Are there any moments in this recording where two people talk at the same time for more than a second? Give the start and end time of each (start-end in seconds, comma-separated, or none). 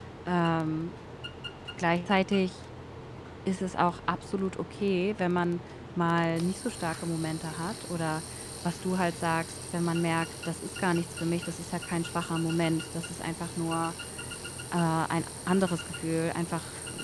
none